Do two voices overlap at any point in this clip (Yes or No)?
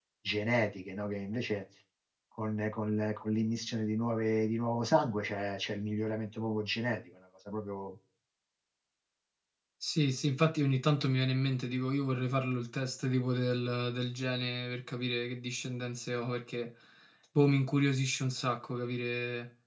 No